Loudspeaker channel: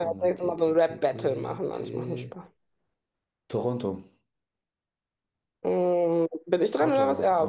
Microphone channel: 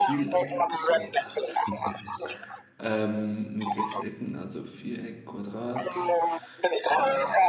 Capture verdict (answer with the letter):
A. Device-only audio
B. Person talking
B